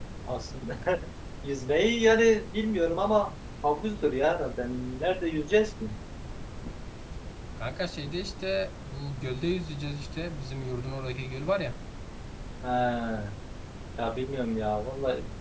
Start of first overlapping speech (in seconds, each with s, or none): none